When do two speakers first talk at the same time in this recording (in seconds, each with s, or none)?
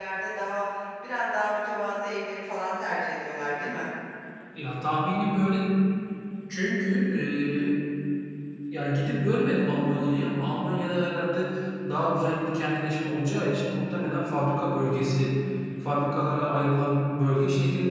none